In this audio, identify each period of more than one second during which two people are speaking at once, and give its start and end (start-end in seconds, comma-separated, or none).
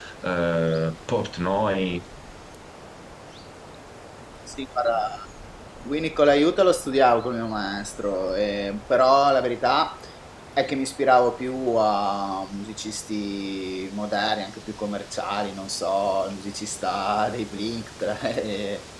none